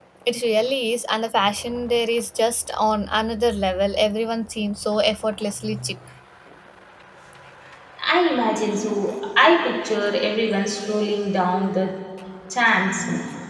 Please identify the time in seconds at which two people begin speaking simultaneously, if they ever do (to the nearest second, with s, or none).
none